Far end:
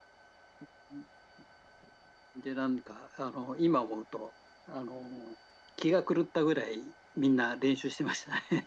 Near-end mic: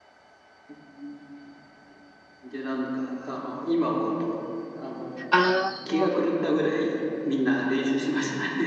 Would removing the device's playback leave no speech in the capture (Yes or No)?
No